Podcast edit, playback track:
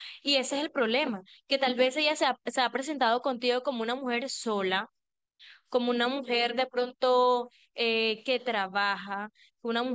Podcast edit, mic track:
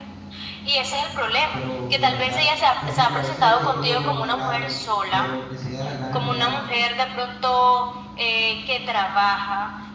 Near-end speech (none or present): present